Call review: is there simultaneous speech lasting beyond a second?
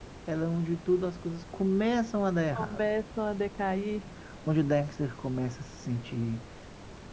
No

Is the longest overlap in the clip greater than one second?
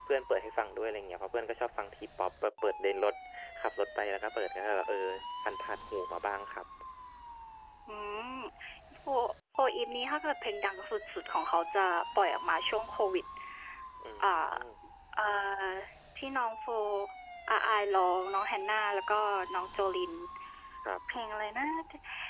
No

